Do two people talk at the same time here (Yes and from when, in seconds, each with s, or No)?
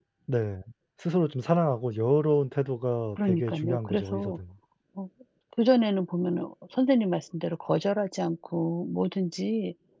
Yes, from 3.2 s